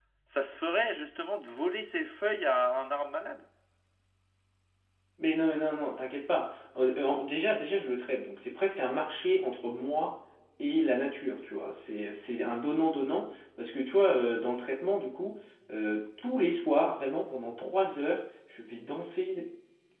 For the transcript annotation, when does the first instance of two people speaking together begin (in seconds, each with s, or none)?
none